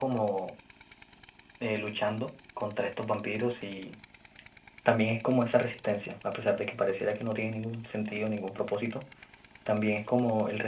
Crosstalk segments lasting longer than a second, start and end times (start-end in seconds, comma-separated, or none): none